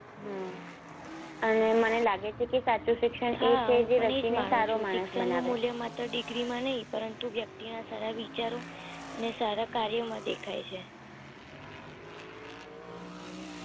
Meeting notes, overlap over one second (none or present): present